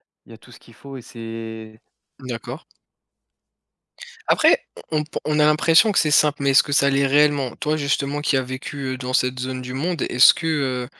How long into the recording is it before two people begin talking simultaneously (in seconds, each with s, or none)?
none